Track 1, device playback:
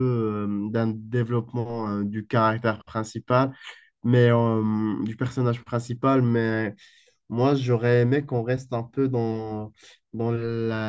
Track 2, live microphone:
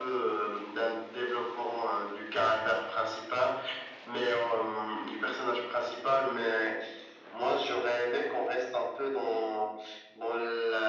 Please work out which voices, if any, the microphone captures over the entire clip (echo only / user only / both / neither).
echo only